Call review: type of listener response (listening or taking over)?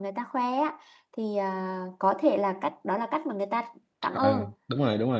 taking over